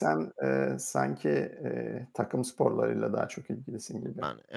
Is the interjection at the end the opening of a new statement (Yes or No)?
Yes